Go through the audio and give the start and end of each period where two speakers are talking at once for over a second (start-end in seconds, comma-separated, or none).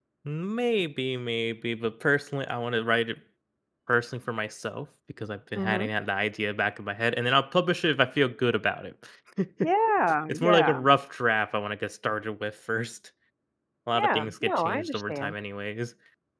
14.0-15.3